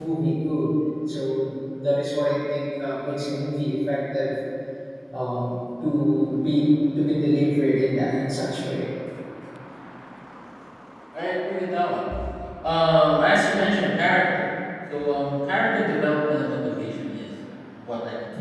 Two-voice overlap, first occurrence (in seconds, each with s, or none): none